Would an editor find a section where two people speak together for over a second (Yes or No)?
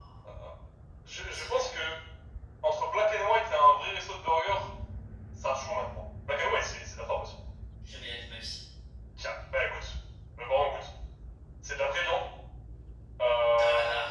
No